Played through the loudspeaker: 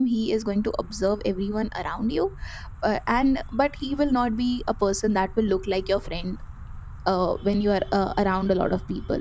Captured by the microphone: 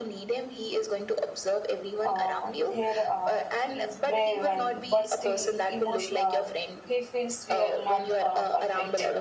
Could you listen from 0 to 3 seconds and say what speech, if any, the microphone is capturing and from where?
both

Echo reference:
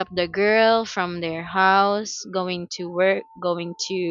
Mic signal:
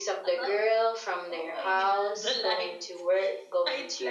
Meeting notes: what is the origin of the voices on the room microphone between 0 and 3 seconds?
both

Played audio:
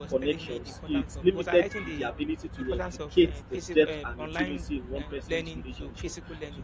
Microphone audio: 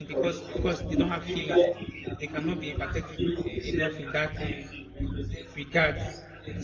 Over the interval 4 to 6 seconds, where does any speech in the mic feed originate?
both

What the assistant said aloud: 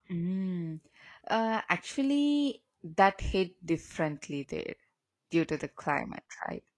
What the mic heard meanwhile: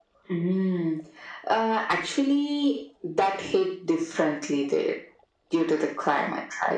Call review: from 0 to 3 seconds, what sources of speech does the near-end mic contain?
echo only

